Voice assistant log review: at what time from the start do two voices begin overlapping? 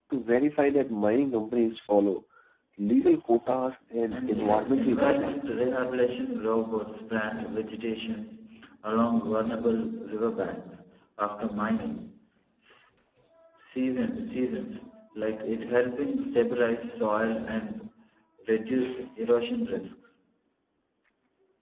4.1 s

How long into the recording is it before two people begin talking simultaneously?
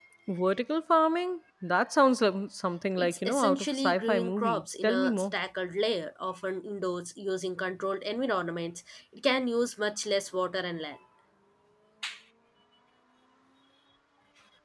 2.9 s

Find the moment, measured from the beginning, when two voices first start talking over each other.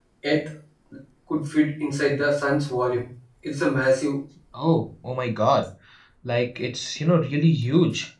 none

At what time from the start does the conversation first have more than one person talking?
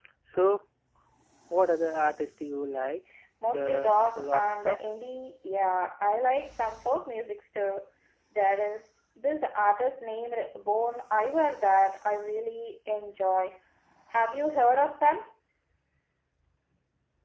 3.4 s

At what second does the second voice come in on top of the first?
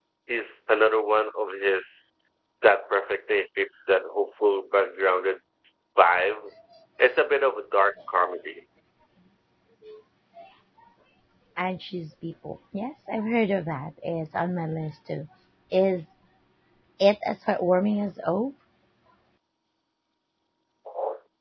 none

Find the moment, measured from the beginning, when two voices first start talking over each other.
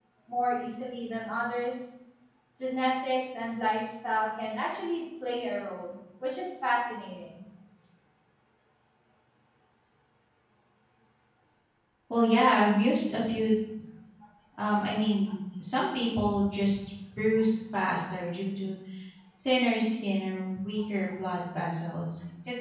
none

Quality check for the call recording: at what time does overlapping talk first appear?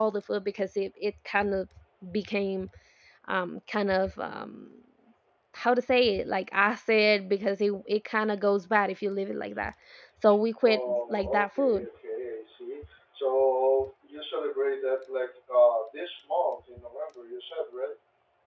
10.6 s

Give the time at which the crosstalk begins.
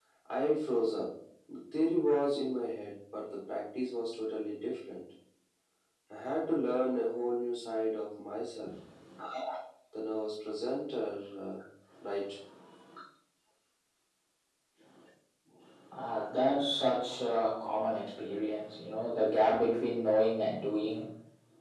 none

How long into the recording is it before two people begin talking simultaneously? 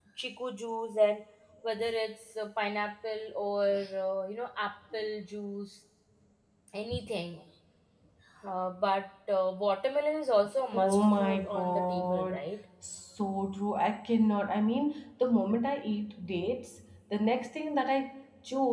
10.7 s

